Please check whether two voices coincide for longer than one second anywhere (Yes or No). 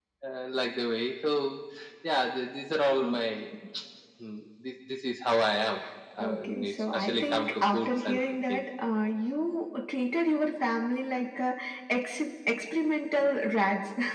Yes